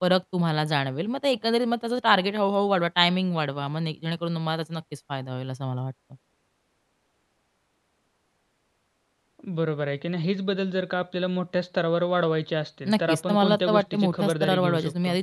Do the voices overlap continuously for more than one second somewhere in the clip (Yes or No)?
Yes